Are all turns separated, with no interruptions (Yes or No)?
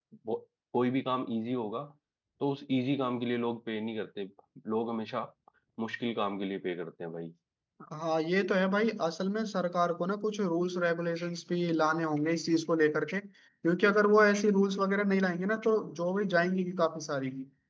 Yes